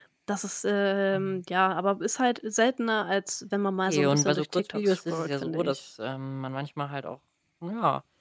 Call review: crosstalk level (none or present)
present